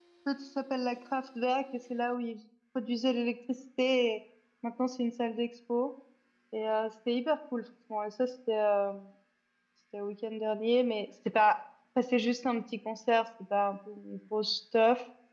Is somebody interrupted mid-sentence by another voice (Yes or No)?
No